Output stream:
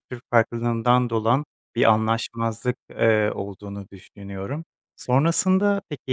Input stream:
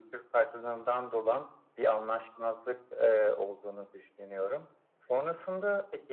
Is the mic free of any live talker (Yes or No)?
Yes